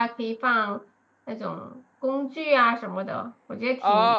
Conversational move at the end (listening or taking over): taking over